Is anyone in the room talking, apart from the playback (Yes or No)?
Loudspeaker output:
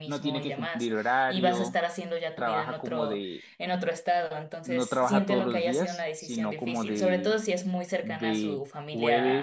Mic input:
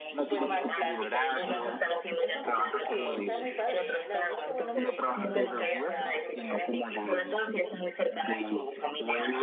Yes